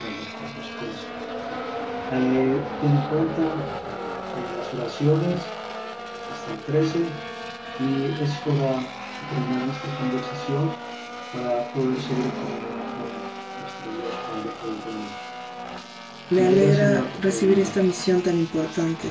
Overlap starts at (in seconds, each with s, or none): 16.4 s